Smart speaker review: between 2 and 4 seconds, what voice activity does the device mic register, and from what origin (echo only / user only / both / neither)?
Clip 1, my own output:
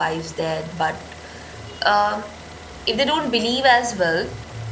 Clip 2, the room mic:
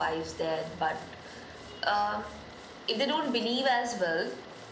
echo only